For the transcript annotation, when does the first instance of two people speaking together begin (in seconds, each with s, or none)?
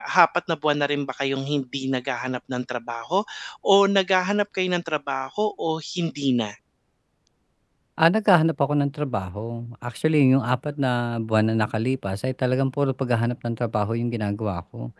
none